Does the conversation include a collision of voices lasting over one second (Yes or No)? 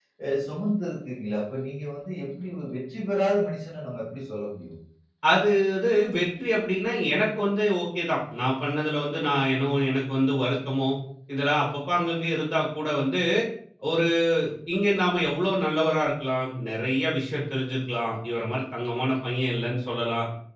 No